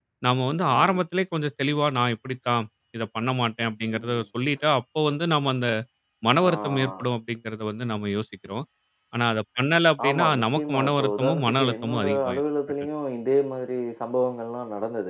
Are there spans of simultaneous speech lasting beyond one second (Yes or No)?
Yes